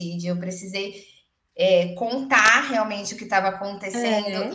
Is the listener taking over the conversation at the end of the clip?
No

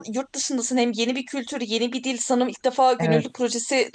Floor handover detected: No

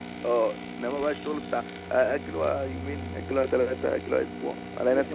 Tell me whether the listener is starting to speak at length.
Yes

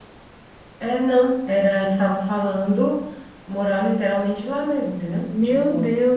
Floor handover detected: Yes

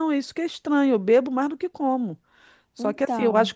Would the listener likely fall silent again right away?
Yes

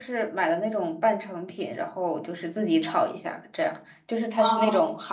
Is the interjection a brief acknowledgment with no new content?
Yes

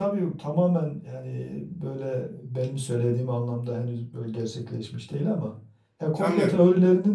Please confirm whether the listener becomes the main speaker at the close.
No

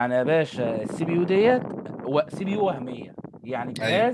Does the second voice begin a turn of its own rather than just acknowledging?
No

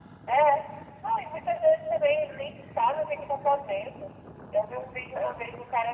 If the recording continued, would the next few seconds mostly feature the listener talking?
No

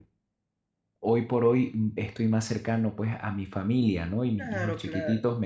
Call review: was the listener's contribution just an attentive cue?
Yes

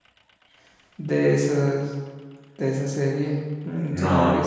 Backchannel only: Yes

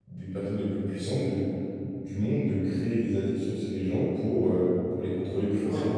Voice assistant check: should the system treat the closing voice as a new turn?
Yes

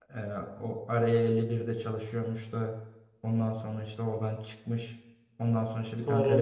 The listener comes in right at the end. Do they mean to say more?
No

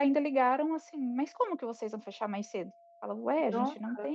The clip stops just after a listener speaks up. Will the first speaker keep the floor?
Yes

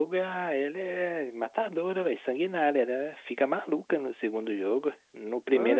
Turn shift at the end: Yes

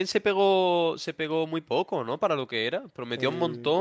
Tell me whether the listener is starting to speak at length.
No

